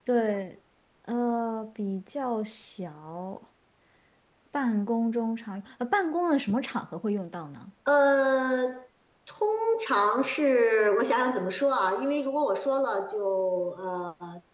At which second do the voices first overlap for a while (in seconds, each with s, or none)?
none